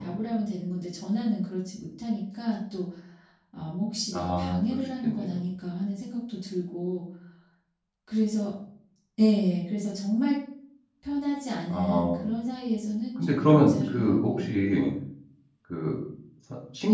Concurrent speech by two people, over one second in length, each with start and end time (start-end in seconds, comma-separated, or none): 4.1-5.4, 13.2-14.5